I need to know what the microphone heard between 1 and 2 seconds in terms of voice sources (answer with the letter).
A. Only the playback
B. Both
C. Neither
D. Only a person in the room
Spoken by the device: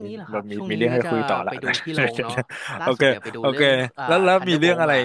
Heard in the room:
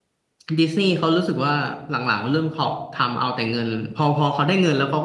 D